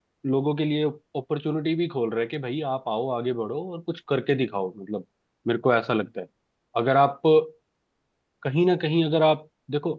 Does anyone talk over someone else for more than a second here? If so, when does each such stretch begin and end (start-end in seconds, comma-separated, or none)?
none